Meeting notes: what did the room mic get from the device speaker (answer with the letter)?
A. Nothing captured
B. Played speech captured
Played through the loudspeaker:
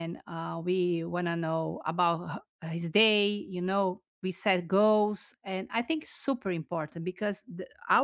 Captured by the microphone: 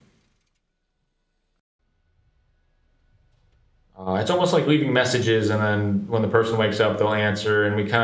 A